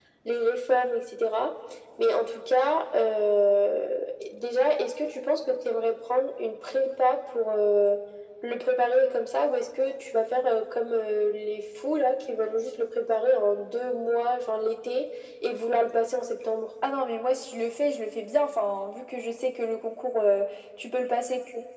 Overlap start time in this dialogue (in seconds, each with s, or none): none